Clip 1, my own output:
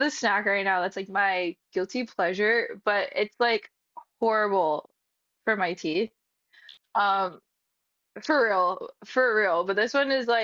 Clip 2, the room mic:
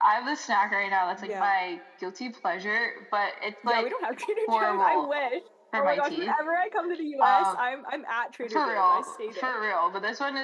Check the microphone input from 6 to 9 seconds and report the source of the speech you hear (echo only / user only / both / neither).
both